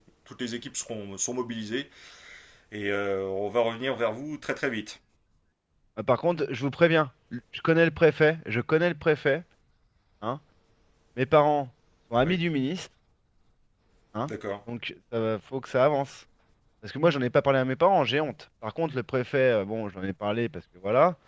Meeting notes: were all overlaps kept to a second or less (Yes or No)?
Yes